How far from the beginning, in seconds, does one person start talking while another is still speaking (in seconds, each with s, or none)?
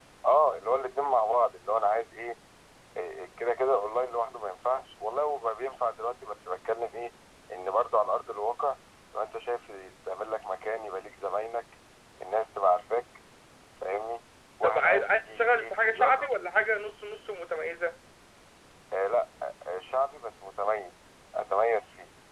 14.6 s